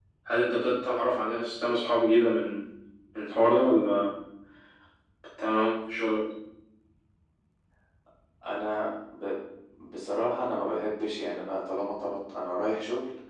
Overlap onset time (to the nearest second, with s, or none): none